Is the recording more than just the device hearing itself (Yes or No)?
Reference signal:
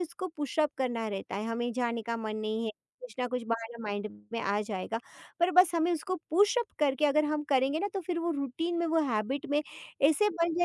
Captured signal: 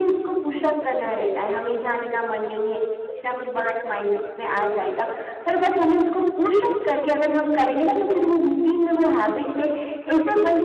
No